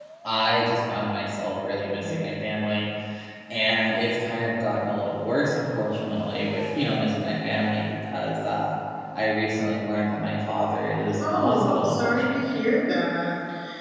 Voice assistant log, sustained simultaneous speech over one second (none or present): present